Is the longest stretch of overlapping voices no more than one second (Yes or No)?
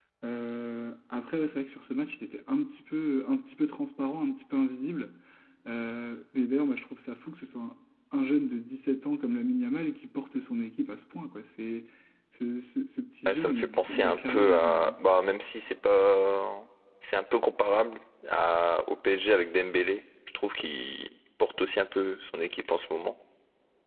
No